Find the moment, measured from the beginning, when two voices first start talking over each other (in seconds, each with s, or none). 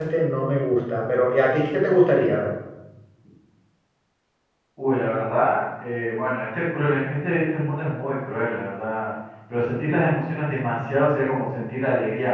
none